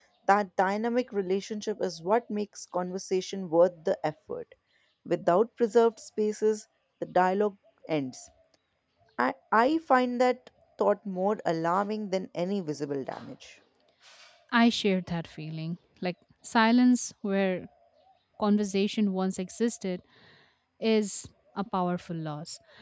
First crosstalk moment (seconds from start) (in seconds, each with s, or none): none